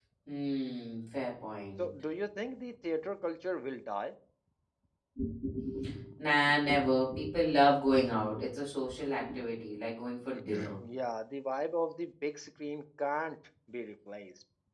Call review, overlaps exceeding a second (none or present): none